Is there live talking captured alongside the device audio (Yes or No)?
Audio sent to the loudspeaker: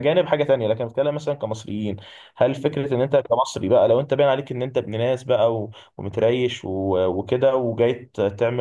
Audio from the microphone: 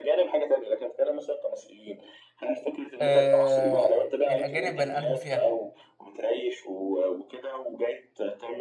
Yes